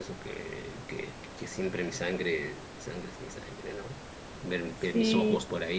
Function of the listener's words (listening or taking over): listening